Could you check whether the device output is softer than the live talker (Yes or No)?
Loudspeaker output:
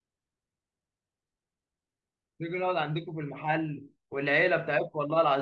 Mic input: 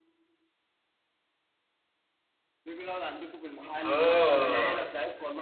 Yes